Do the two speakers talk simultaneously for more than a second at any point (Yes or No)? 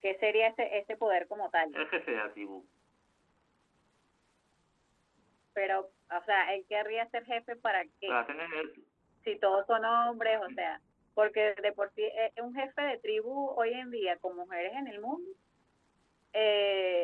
No